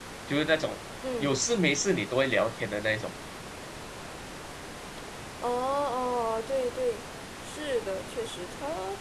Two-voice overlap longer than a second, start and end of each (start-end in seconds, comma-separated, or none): none